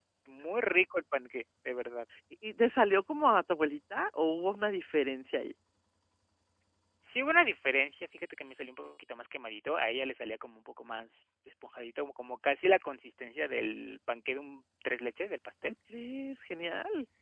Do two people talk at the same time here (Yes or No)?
No